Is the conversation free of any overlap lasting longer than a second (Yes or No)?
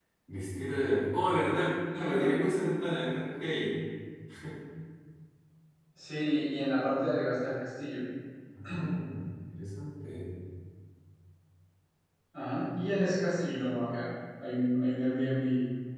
Yes